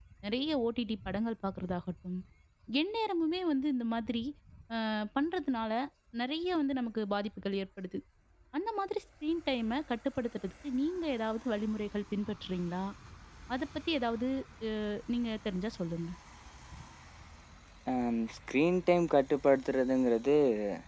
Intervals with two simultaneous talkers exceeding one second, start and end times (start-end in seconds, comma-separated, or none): none